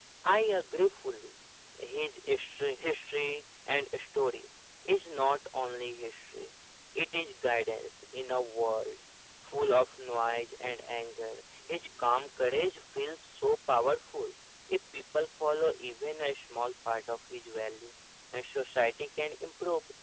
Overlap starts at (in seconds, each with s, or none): none